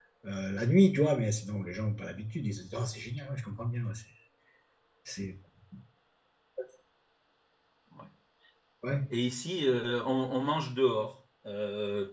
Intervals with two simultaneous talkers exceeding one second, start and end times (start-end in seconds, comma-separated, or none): none